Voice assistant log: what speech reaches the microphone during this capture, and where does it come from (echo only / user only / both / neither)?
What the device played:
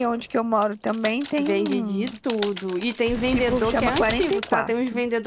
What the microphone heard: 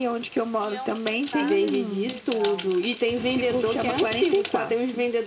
both